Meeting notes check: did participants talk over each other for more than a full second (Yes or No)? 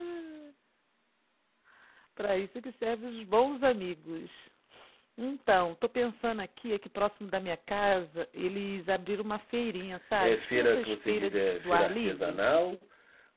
Yes